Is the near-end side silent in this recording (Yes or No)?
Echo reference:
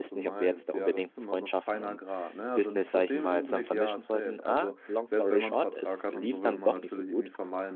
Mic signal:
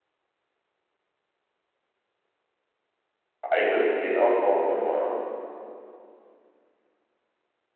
No